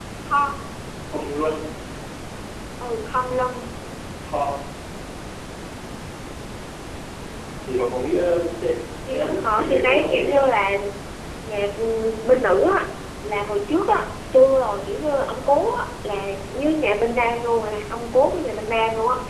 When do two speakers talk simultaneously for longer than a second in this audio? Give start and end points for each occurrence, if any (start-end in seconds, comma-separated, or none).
9.1-10.4